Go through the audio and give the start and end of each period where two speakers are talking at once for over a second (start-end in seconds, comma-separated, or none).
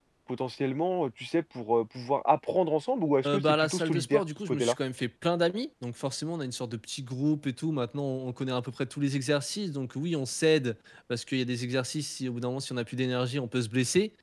3.3-4.8